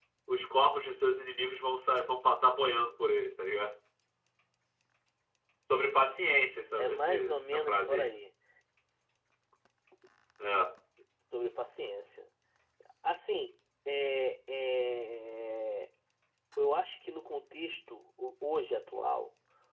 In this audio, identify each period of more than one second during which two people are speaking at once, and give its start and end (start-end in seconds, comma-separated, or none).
6.7-8.1